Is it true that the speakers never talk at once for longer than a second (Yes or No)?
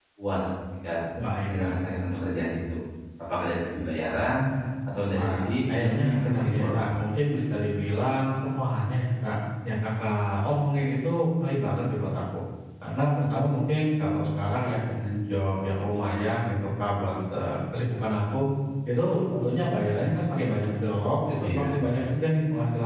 No